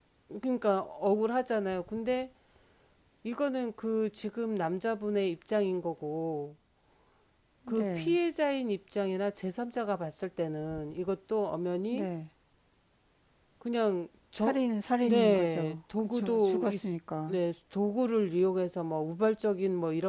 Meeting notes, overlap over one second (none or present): present